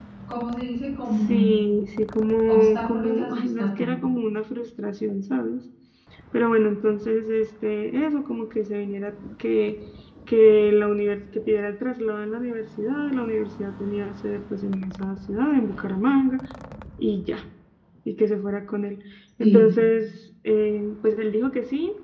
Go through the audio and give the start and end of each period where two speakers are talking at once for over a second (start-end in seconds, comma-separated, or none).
2.5-4.0